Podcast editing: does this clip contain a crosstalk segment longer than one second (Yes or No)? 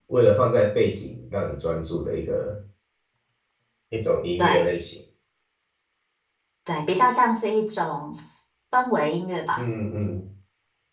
No